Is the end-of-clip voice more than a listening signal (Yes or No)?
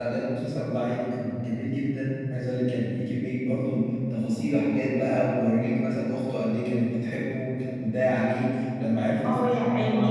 Yes